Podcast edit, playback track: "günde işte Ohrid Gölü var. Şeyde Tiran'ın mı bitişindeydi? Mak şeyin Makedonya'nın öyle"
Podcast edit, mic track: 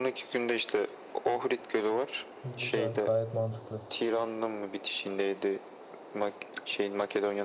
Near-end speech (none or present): present